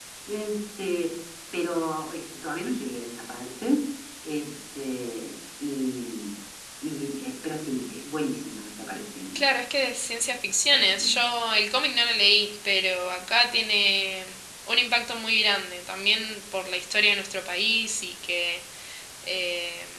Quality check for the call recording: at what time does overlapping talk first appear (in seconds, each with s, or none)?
none